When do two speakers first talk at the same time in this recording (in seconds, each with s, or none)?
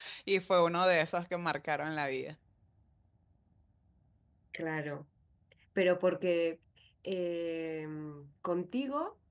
none